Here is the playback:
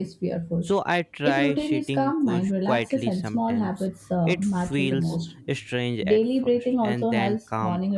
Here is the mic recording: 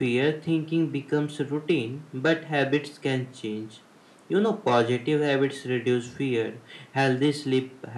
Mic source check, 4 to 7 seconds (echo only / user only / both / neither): user only